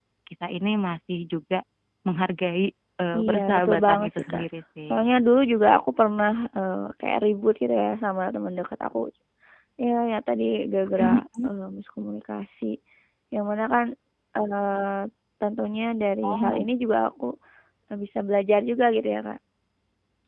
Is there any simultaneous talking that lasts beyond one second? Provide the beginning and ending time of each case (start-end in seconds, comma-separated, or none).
3.2-4.4